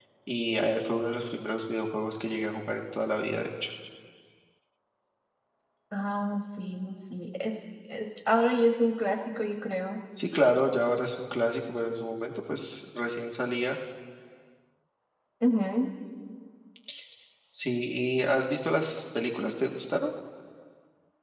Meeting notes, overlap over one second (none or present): none